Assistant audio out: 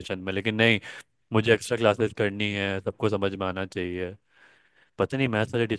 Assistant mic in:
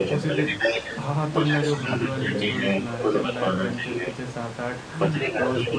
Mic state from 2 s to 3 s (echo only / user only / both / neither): both